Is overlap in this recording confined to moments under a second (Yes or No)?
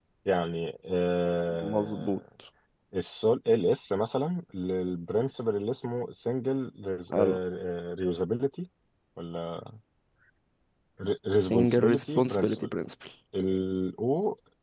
No